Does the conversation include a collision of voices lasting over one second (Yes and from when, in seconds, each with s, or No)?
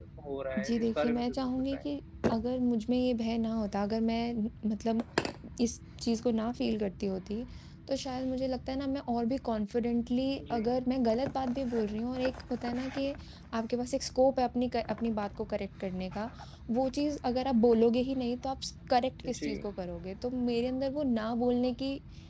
Yes, from 0.6 s